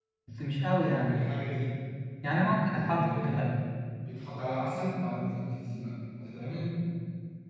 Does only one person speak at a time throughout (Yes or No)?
No